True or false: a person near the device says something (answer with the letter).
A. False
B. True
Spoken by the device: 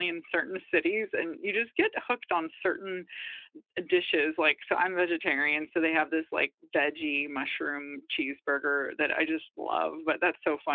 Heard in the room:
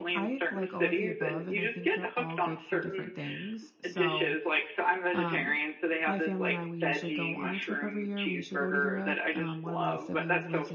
B